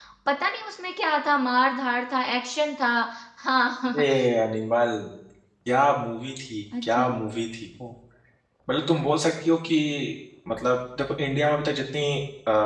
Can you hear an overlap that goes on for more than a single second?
No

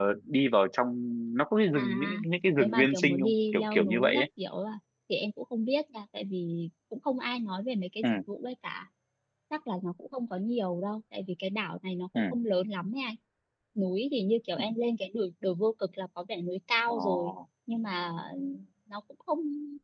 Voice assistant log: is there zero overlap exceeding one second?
No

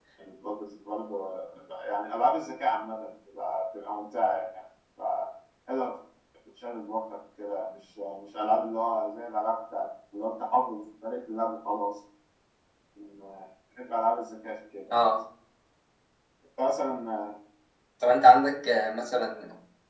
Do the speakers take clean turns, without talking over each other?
Yes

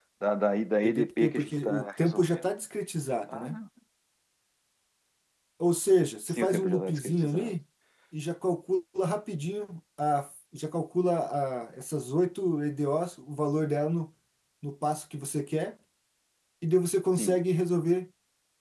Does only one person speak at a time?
No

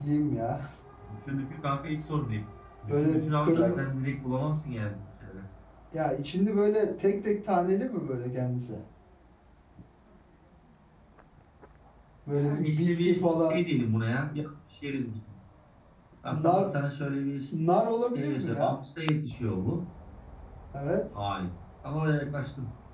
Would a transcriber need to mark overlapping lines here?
Yes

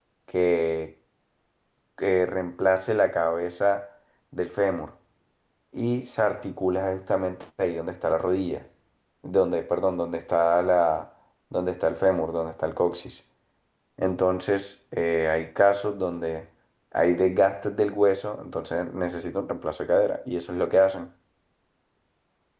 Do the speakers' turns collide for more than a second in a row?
No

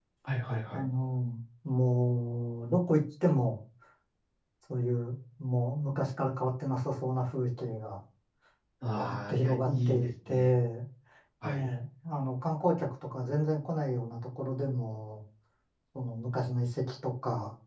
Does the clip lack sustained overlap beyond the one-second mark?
No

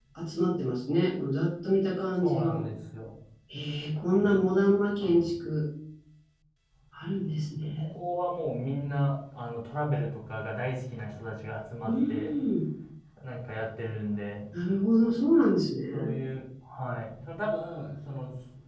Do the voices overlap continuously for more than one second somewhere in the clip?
No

